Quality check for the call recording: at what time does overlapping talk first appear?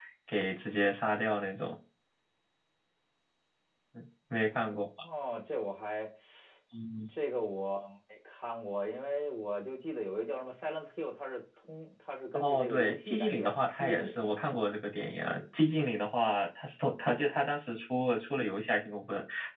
12.3 s

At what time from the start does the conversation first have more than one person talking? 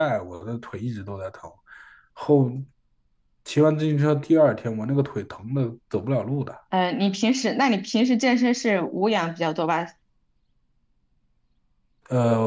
none

